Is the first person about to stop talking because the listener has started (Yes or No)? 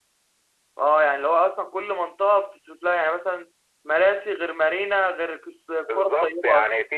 Yes